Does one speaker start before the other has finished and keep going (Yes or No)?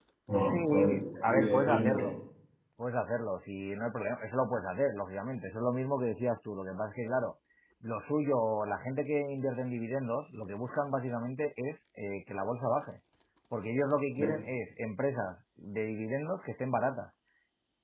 Yes